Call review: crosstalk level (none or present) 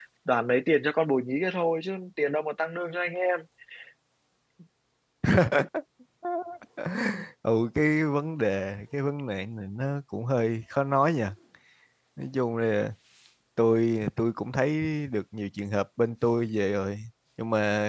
none